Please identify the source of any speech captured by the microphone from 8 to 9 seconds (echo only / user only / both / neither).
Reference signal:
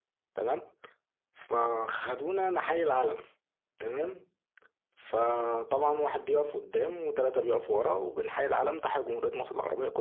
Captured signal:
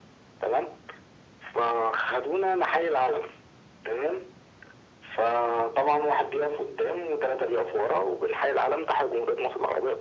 echo only